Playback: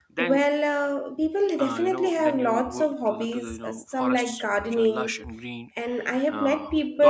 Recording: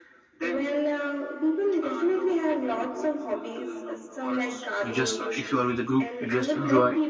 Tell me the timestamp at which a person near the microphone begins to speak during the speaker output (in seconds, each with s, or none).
4.8 s